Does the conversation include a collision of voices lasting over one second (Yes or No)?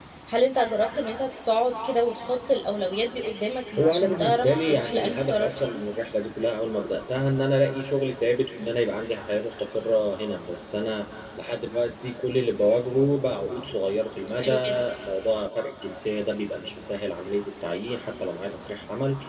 Yes